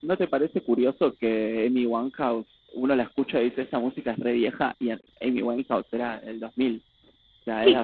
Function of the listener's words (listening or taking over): taking over